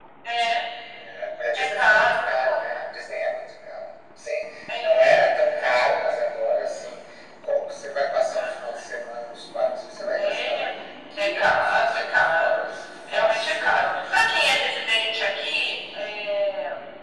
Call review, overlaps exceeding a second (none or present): present